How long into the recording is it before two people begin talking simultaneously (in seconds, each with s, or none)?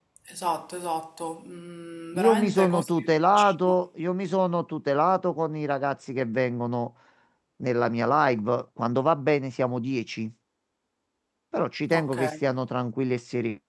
2.1 s